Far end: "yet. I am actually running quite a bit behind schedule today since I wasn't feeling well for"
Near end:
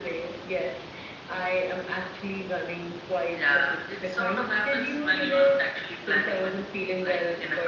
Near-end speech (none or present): present